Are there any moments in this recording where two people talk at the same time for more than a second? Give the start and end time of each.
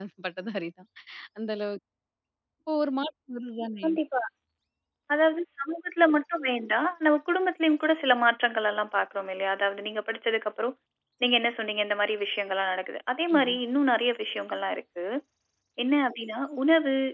none

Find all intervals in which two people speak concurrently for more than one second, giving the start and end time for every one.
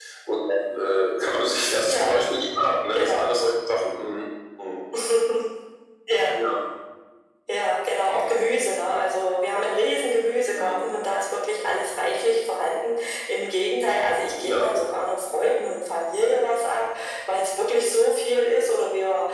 none

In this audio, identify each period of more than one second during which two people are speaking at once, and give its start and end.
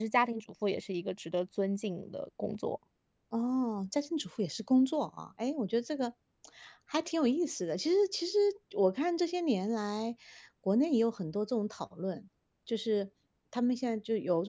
none

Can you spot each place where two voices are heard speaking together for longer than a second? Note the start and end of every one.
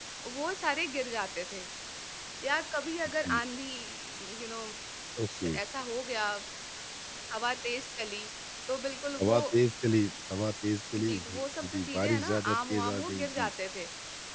10.9-13.5

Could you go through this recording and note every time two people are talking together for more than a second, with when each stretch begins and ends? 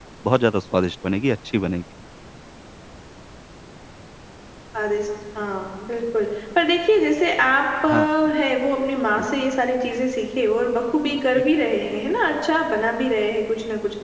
none

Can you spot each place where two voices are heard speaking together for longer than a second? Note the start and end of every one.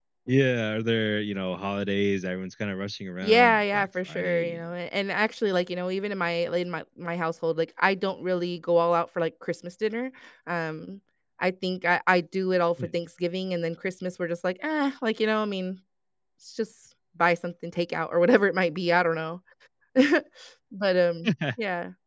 3.2-4.7

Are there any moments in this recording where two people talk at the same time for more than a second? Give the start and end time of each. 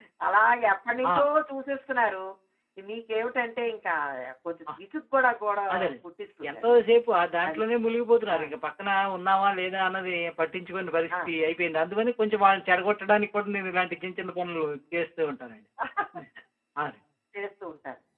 none

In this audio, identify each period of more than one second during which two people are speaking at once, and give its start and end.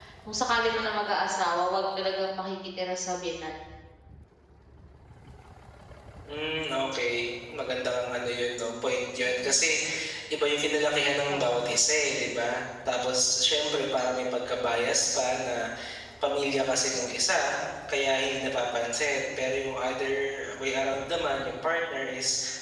none

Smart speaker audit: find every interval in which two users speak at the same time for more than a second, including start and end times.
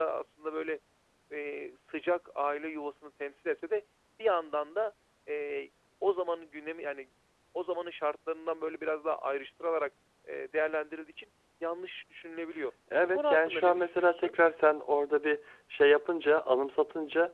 13.0-14.3

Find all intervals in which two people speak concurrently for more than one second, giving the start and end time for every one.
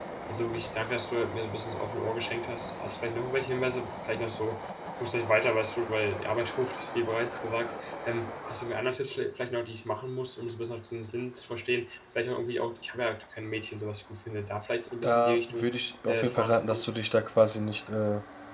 15.0-16.8

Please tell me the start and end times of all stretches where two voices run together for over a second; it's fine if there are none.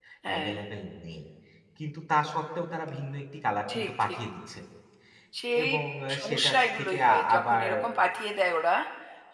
6.2-7.7

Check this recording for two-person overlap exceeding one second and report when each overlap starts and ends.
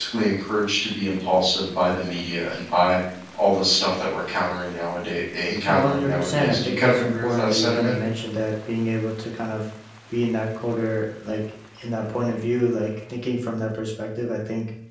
5.7-8.0

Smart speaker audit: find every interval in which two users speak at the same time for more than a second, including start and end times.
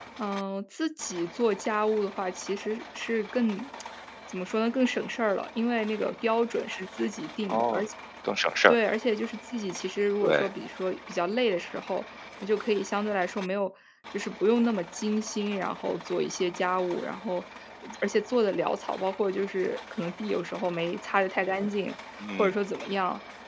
none

